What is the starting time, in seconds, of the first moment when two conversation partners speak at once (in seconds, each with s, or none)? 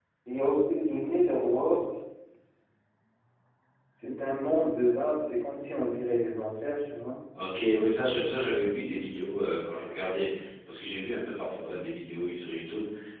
none